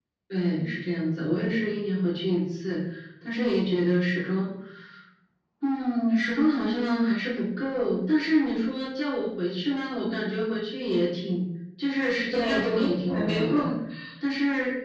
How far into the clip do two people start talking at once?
12.3 s

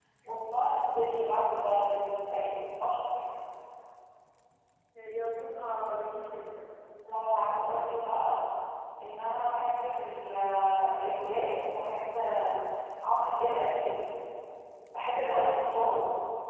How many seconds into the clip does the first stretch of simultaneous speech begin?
none

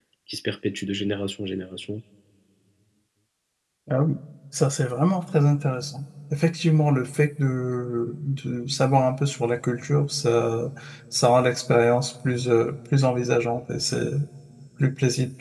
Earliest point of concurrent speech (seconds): none

